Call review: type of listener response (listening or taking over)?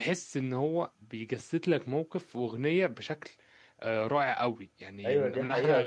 taking over